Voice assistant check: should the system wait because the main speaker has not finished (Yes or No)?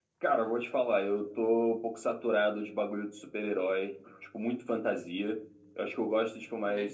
Yes